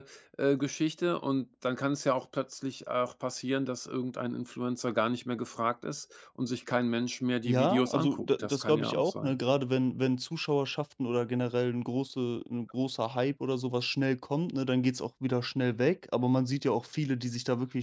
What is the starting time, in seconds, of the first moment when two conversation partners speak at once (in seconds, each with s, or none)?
7.4 s